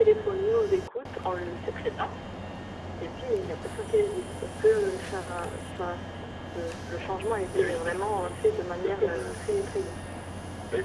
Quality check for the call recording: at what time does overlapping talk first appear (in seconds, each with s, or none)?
7.5 s